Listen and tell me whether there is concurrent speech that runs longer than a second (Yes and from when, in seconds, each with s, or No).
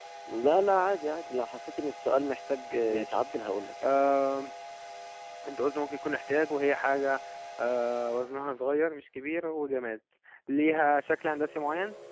No